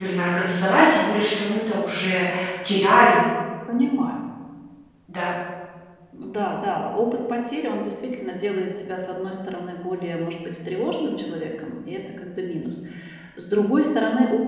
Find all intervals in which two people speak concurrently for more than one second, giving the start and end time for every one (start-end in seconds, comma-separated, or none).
none